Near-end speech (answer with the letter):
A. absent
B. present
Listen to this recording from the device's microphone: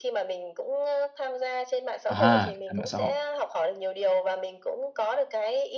B